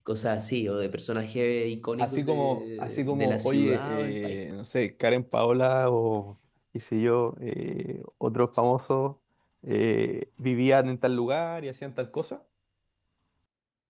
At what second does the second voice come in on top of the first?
2.0 s

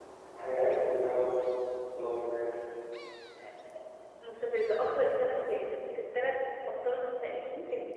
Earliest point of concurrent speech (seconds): none

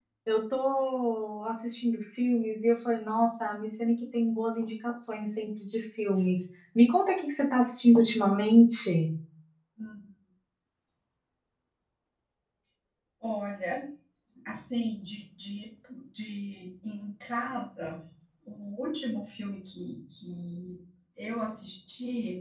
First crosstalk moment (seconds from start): none

